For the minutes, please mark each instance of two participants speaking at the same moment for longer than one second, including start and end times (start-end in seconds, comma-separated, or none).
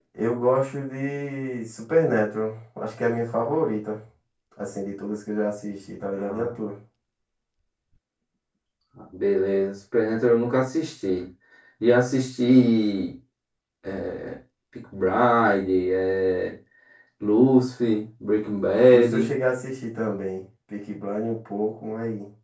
none